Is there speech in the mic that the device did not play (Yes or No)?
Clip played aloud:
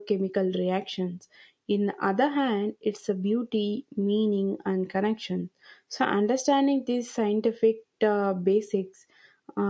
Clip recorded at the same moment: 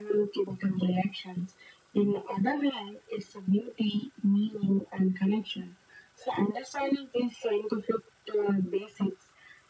No